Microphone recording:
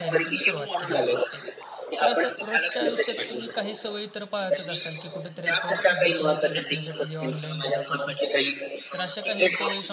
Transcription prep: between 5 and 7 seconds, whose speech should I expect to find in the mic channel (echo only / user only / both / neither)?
both